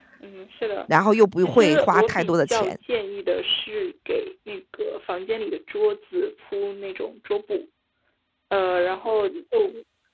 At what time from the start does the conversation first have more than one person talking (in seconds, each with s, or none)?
1.4 s